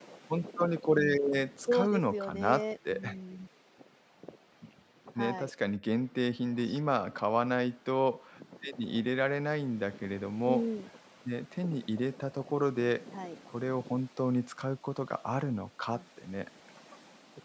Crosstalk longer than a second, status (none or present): present